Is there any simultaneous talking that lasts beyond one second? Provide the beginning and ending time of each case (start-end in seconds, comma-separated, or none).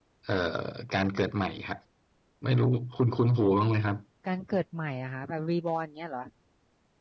none